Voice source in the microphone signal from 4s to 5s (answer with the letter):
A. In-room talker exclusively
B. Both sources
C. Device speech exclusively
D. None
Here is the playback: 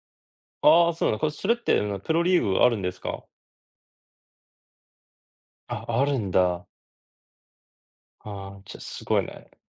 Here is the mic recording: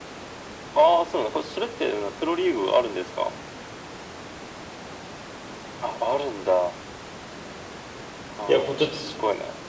D